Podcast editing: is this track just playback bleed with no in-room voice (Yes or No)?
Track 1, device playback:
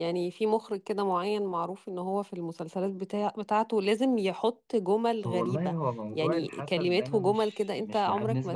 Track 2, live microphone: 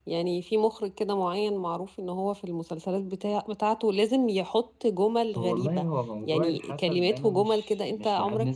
Yes